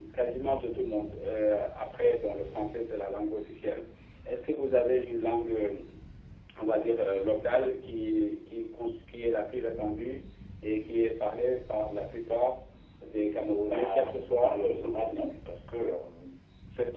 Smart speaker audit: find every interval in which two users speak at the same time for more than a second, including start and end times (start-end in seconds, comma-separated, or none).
13.7-15.2